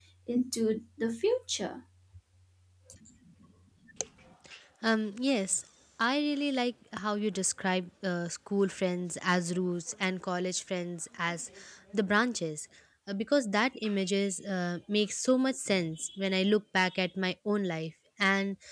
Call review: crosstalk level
none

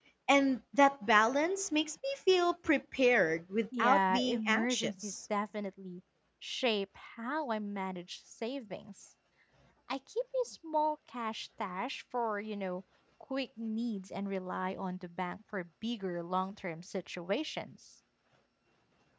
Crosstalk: present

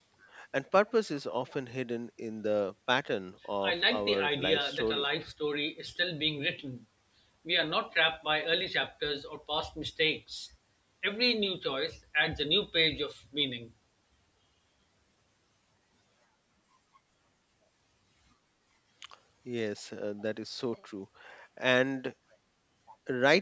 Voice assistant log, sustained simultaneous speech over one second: present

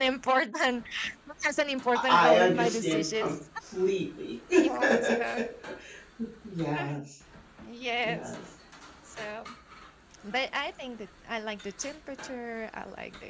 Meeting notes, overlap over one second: present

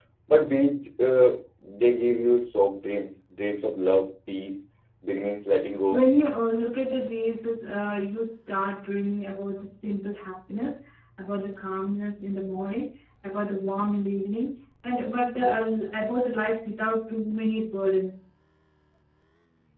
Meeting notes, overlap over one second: none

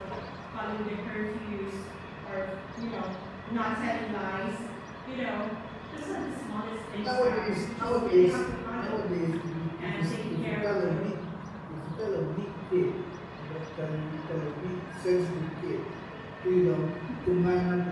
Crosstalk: present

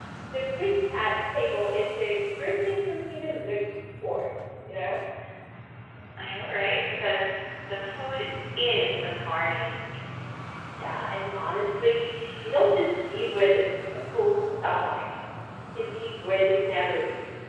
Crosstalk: none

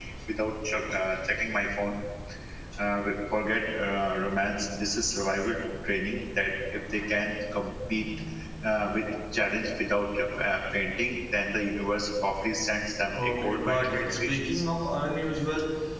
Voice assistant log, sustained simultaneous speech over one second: present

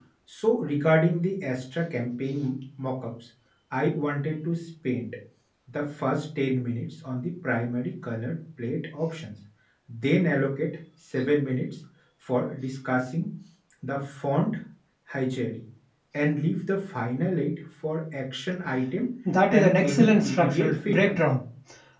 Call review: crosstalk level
present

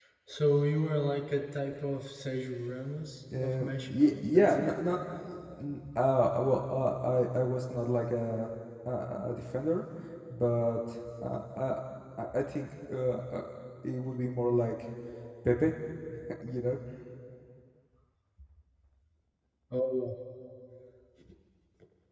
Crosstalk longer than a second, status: present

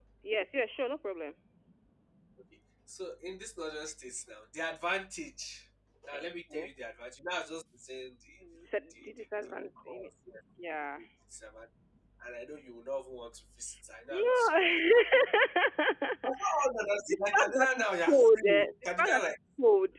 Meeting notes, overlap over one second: present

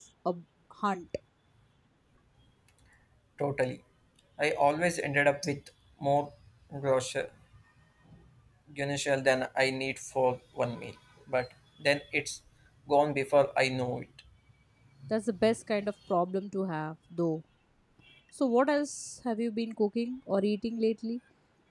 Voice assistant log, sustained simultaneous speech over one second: none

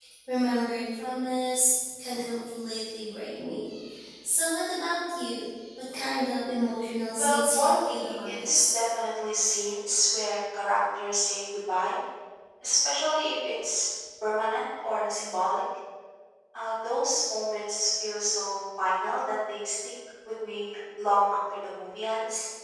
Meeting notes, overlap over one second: present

